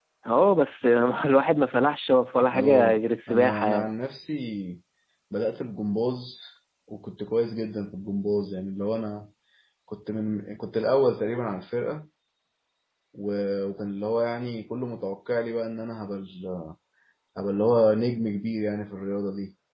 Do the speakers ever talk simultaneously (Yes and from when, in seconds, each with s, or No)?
Yes, from 2.5 s